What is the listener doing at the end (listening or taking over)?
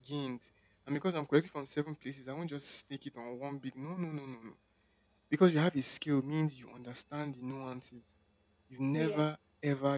listening